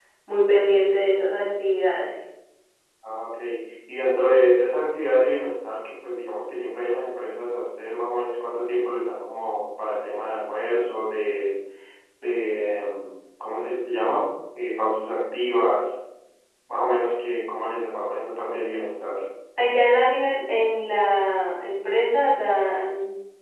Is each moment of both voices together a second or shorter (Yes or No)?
Yes